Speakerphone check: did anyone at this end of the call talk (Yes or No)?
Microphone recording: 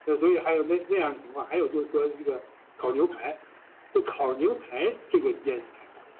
No